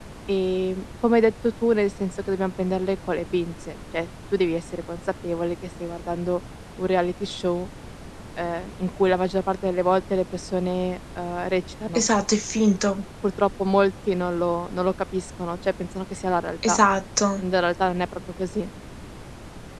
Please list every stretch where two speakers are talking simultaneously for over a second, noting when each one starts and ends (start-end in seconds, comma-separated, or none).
none